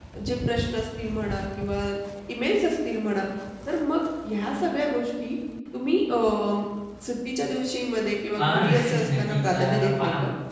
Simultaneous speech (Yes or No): Yes